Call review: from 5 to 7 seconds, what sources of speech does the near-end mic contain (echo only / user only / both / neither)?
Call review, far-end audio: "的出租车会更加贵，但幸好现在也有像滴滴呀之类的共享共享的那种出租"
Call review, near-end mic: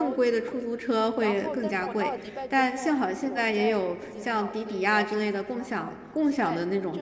both